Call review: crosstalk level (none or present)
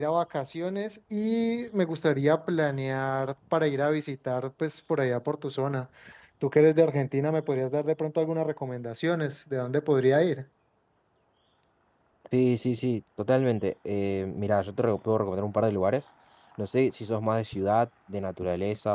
none